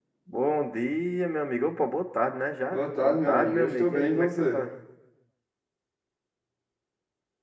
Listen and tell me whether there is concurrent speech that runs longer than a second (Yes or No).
Yes